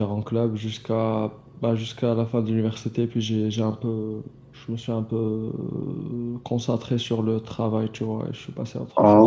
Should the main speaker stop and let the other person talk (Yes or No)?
Yes